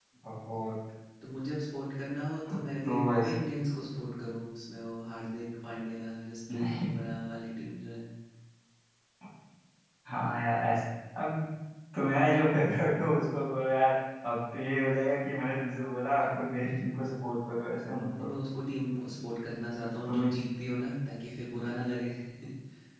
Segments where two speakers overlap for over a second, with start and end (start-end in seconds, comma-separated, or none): none